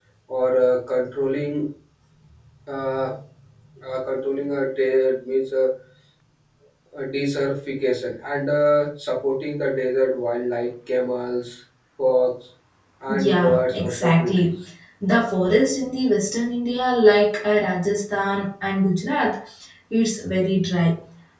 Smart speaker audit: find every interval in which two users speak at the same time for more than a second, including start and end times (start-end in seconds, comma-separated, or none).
13.1-14.5